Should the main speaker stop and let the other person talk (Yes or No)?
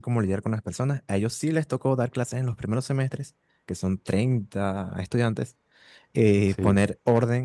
No